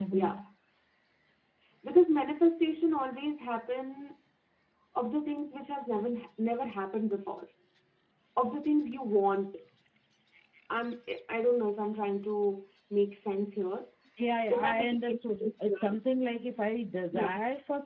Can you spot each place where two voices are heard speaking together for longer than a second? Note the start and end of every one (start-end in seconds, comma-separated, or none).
14.5-16.0